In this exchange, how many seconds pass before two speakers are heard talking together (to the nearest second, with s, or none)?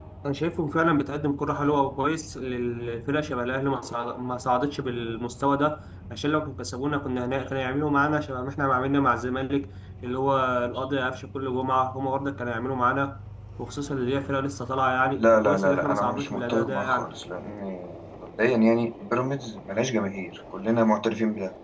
15 s